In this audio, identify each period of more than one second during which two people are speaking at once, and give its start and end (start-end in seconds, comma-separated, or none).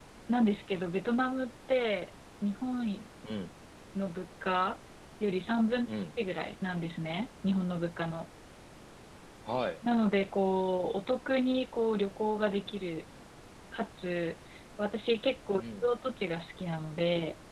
none